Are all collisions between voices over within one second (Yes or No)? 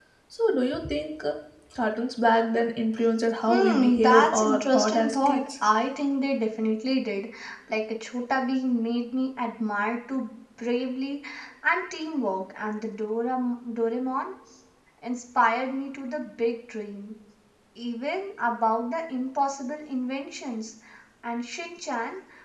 No